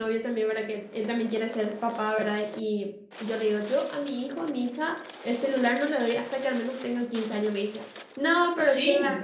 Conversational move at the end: listening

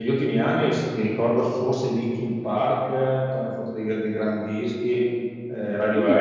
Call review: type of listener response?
taking over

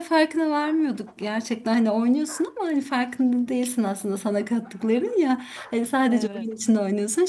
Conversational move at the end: listening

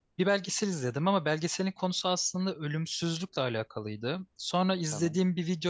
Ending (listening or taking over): listening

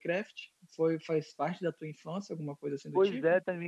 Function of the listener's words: taking over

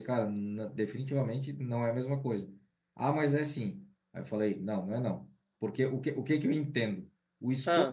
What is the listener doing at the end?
listening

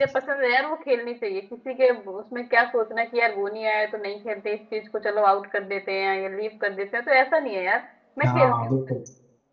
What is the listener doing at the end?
taking over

